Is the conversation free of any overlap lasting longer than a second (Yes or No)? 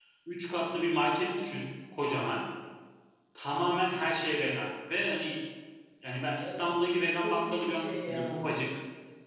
No